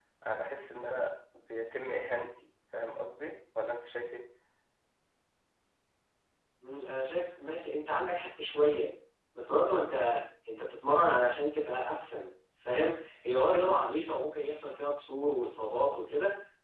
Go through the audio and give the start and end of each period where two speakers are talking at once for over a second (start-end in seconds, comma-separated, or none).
none